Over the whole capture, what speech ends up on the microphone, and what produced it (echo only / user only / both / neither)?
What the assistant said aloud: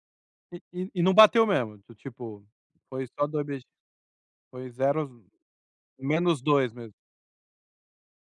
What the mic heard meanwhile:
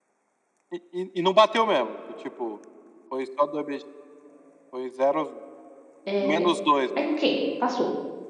both